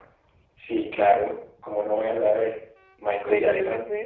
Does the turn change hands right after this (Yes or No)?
Yes